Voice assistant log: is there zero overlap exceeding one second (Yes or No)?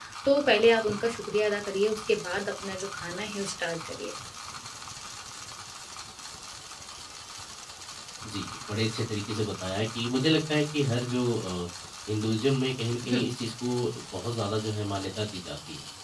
Yes